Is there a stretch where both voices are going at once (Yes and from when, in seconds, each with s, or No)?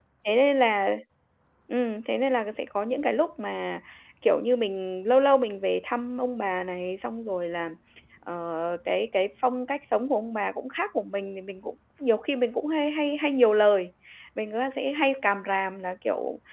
No